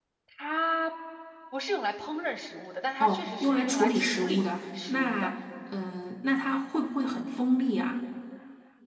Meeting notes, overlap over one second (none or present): present